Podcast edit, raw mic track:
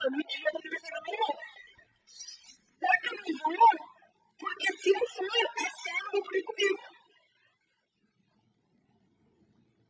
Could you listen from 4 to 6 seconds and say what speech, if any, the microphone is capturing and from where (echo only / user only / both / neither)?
echo only